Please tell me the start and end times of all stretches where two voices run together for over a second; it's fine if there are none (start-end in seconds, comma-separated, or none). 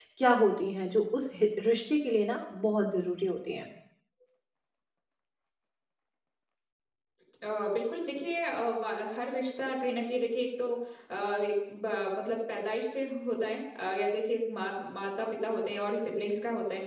none